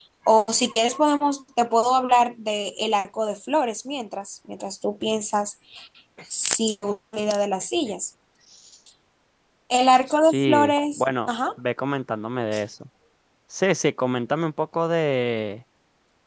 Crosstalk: present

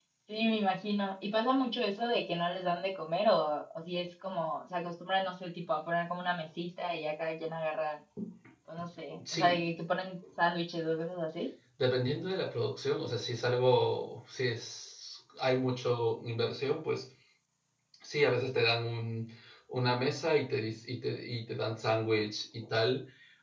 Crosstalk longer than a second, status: none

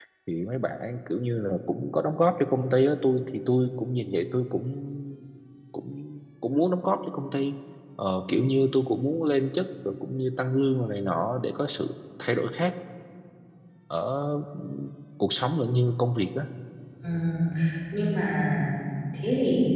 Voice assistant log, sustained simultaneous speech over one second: none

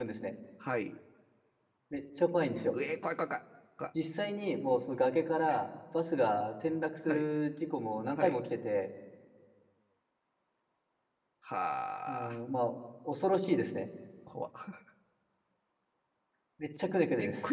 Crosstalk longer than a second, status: none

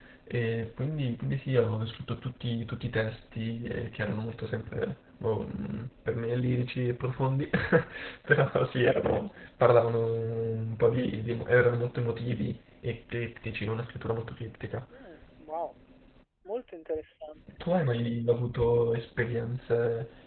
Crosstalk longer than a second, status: none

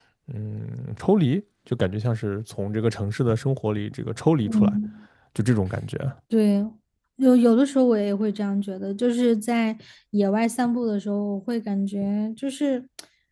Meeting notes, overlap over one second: none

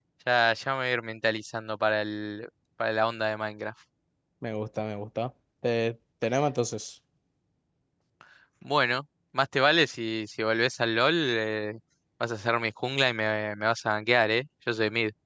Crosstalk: none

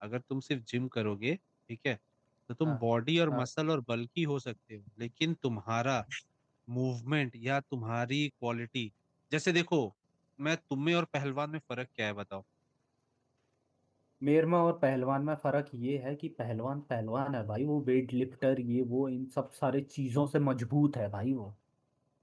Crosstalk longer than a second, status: none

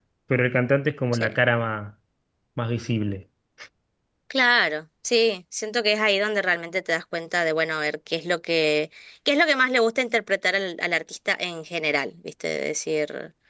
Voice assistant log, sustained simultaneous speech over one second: none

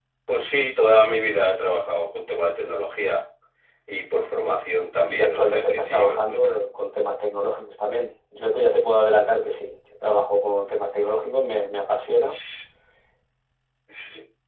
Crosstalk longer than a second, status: present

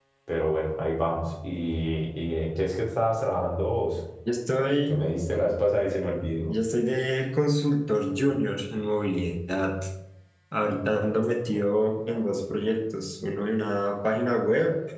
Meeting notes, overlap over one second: none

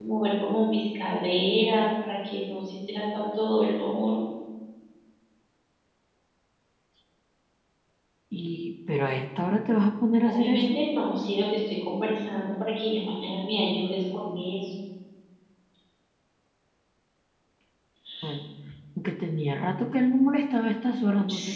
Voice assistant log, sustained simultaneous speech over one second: none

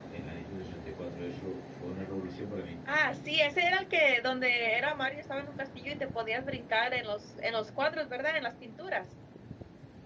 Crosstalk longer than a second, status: none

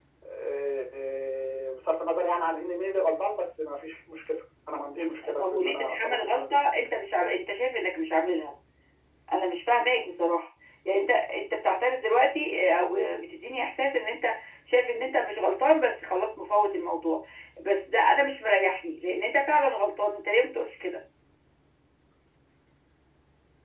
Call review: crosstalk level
present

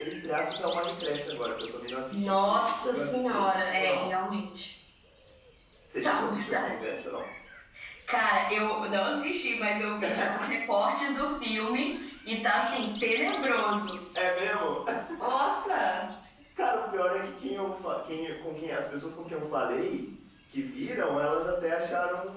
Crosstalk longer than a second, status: present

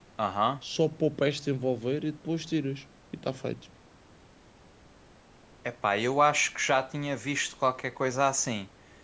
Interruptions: none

